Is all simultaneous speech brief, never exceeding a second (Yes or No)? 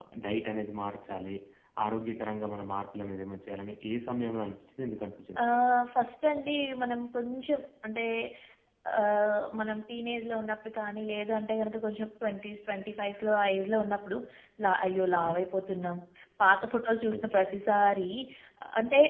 Yes